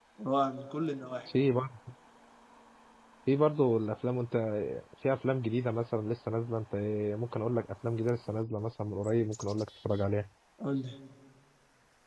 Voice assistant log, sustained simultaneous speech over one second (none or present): none